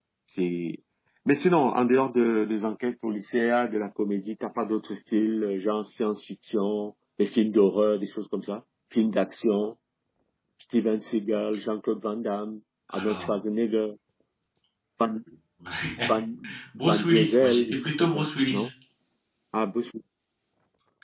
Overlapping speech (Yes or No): Yes